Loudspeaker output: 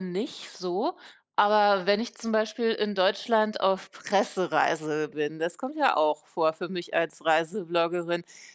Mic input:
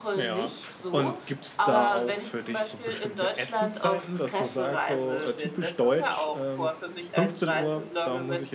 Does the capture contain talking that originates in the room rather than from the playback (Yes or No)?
Yes